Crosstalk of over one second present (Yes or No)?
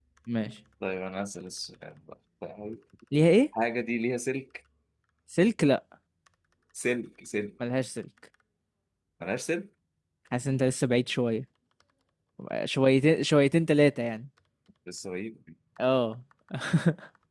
No